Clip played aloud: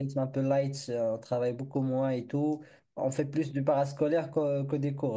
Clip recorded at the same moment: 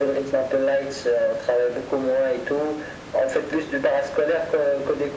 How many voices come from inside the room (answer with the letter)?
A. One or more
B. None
B